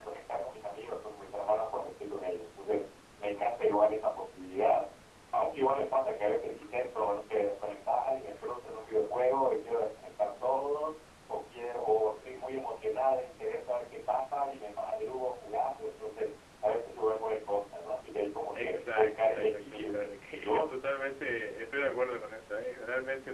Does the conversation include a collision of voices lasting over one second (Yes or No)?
Yes